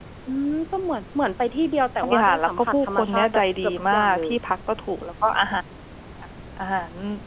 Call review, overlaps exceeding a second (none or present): present